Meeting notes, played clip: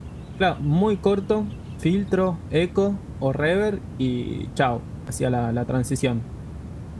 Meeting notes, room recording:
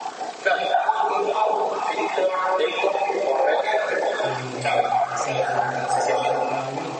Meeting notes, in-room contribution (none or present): present